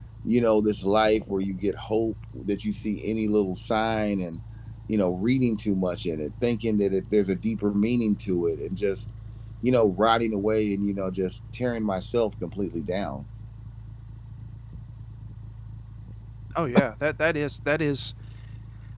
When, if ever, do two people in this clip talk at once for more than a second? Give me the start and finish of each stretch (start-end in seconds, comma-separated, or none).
none